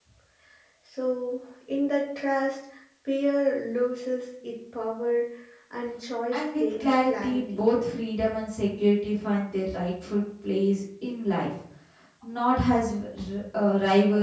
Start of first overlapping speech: 6.3 s

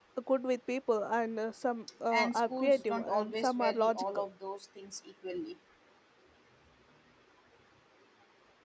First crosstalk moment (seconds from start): 2.1 s

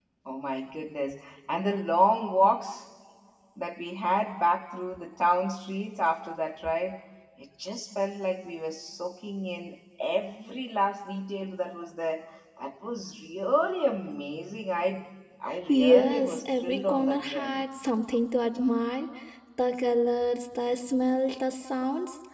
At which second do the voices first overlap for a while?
15.7 s

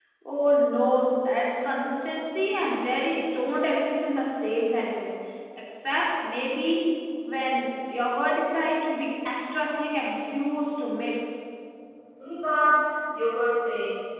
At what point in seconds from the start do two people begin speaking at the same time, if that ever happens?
none

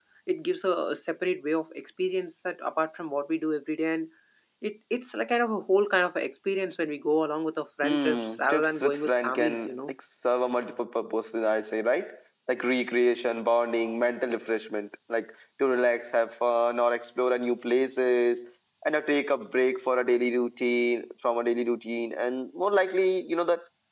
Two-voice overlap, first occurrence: 7.8 s

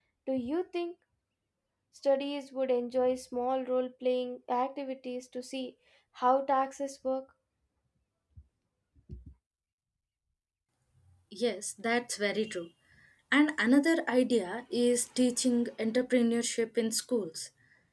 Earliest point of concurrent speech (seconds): none

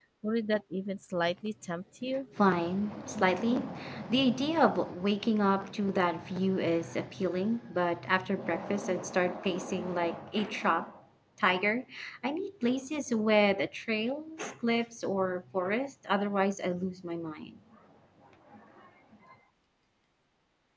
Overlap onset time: none

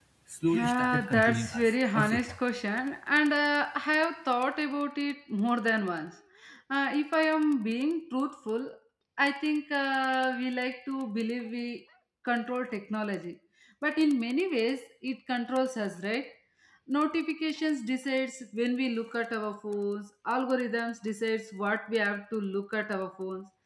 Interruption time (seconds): 0.5 s

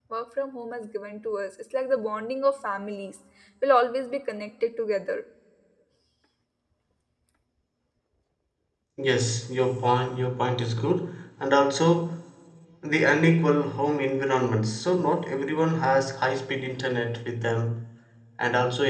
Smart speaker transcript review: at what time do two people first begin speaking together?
none

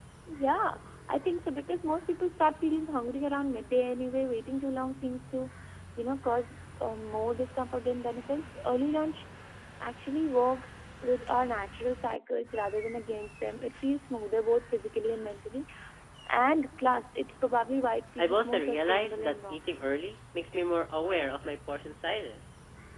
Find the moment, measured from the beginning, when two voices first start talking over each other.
18.2 s

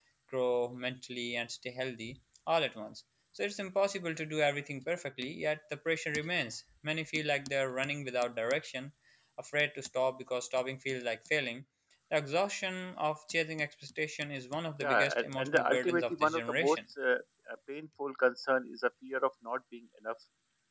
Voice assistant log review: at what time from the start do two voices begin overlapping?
14.8 s

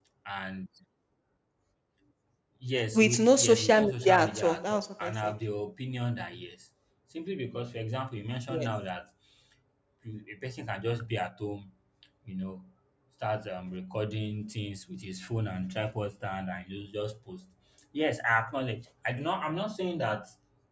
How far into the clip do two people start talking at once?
2.9 s

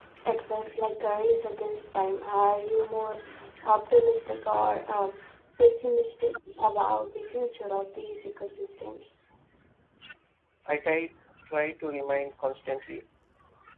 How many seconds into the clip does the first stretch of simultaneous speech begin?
none

